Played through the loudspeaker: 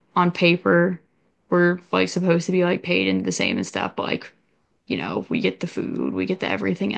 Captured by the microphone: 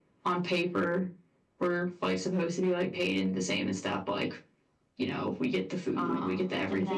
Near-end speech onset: 5.9 s

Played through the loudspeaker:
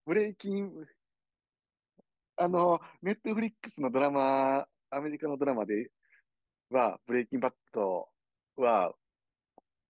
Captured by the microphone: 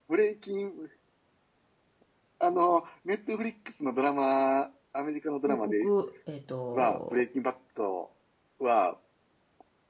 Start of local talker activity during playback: 5.4 s

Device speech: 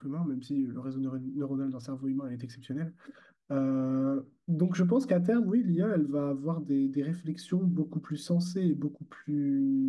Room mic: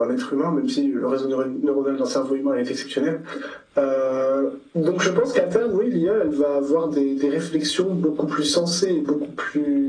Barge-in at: none

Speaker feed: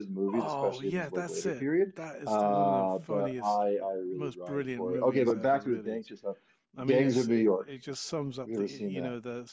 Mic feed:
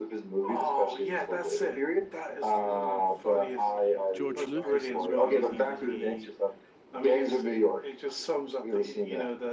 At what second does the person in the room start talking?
4.1 s

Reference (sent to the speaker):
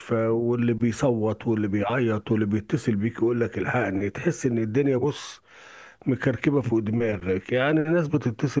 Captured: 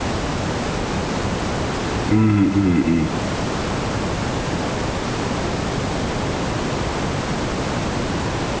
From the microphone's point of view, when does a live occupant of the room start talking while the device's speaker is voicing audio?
2.0 s

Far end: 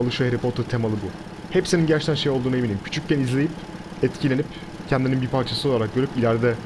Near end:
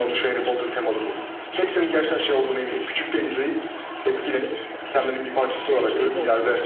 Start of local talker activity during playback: 4.7 s

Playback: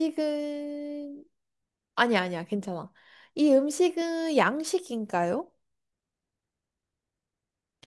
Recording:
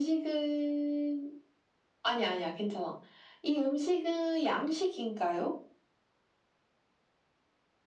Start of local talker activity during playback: none

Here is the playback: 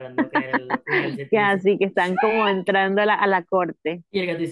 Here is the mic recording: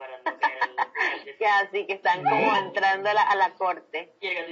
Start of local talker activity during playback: 2.1 s

